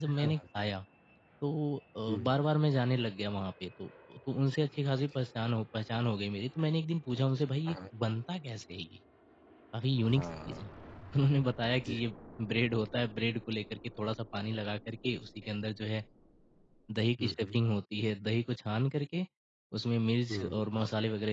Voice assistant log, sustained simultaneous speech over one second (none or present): none